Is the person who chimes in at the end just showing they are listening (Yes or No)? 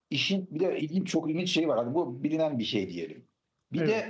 Yes